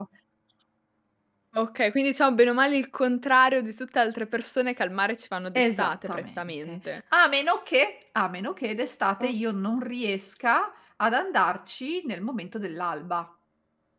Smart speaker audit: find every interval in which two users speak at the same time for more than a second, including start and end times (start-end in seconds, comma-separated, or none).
5.5-6.8